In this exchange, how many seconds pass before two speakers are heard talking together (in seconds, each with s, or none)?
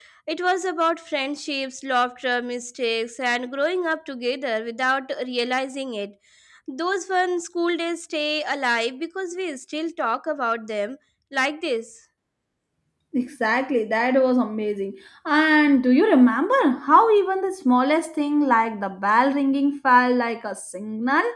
none